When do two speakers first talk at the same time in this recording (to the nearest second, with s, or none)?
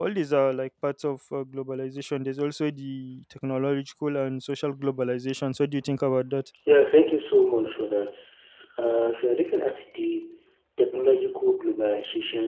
none